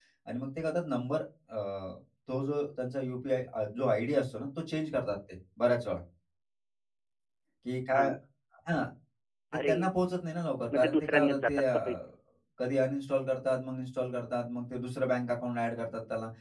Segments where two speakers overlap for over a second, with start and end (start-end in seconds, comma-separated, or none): 10.7-12.0